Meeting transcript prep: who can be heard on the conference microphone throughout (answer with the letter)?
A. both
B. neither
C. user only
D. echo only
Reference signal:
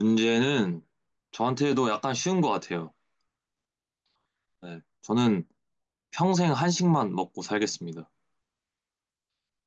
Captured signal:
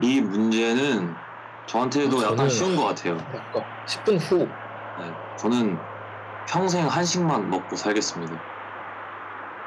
A